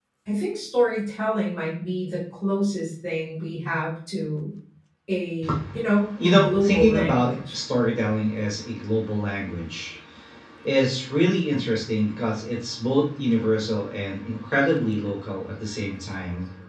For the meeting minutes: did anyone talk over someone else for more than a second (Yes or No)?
Yes